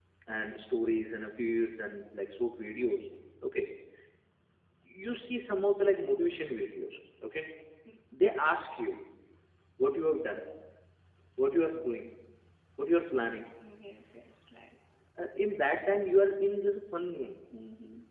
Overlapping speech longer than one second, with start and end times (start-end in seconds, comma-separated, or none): none